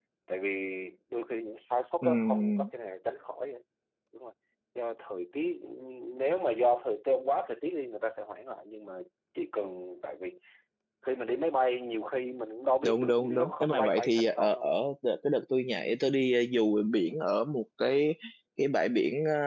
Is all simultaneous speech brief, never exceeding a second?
No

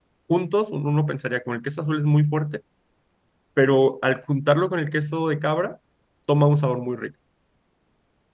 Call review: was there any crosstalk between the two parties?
No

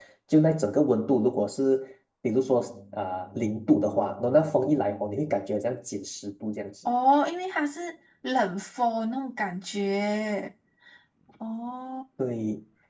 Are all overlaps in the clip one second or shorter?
Yes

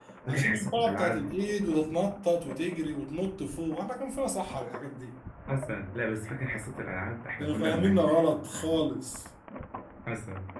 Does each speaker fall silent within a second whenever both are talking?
No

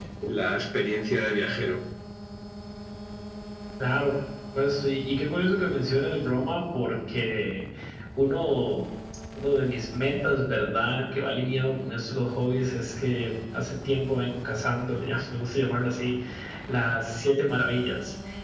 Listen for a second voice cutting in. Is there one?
No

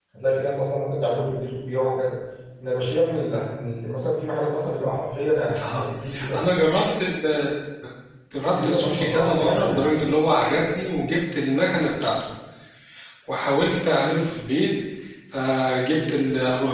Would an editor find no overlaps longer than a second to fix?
No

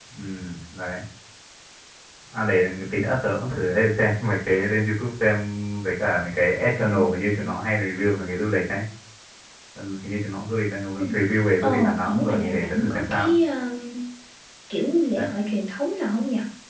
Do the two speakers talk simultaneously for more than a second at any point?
Yes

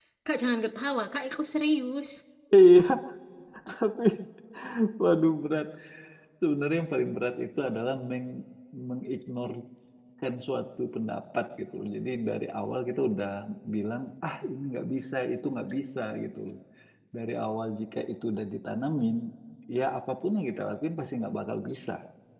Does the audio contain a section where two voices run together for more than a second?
No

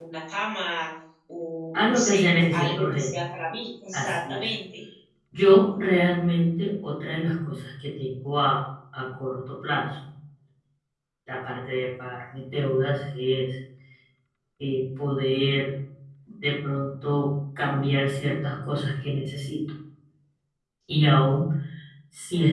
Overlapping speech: Yes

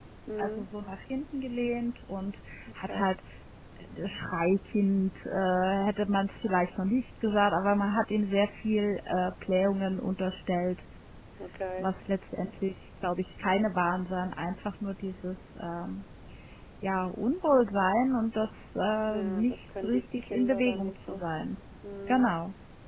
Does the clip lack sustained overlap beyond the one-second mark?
No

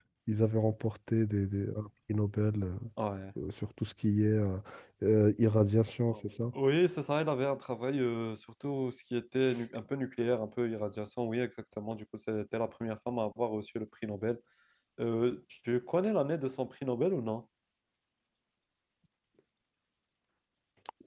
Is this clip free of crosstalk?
Yes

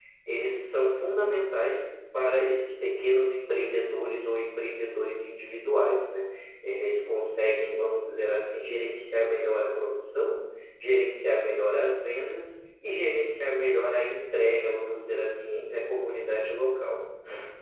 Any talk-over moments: No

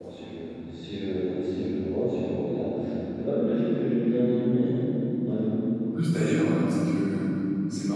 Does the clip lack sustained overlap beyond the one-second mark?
Yes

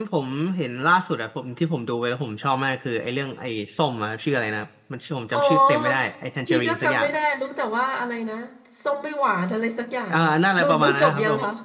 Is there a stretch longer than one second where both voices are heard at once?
Yes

